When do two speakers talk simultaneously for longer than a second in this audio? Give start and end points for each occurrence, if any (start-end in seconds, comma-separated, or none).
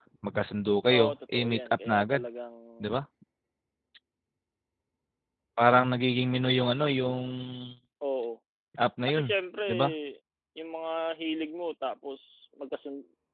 0.9-2.2